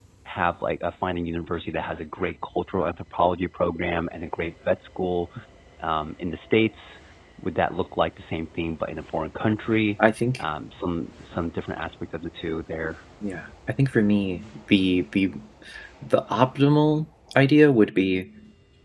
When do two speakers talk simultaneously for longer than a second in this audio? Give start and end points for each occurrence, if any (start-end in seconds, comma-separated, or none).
none